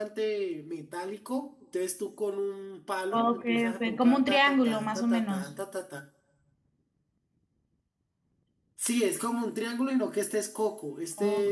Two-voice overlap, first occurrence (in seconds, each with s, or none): 3.1 s